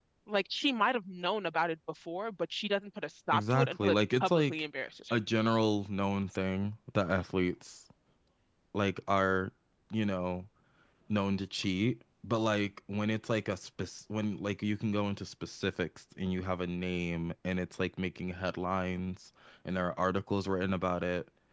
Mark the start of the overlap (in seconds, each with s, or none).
3.3 s